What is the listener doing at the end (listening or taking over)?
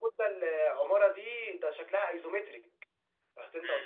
taking over